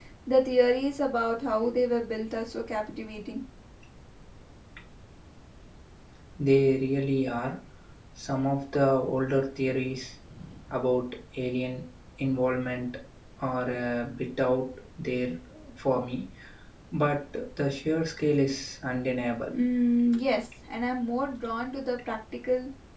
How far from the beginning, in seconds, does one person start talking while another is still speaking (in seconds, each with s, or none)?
none